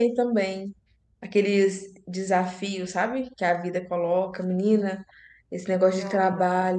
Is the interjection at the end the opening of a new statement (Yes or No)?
No